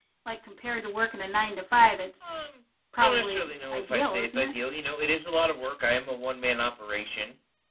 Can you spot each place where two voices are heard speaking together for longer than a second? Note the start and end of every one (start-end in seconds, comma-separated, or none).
3.0-4.5